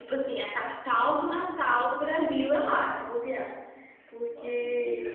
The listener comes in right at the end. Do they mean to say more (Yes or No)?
Yes